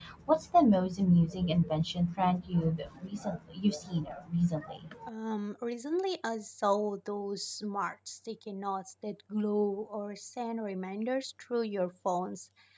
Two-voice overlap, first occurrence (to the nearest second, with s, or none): none